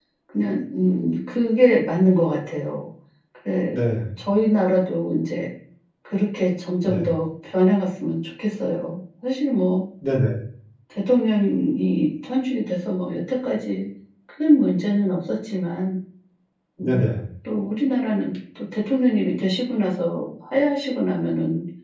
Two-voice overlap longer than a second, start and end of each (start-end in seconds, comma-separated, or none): none